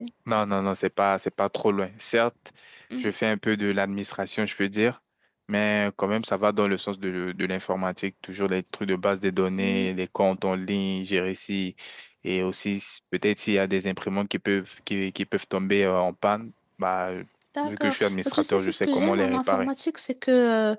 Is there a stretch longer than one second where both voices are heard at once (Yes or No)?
Yes